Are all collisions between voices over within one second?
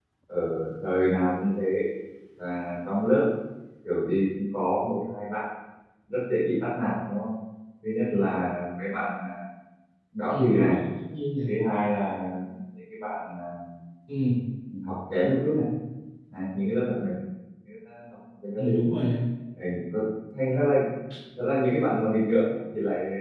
Yes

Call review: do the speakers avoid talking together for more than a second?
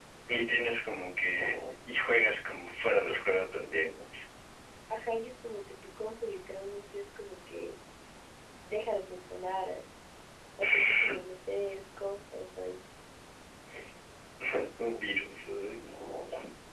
Yes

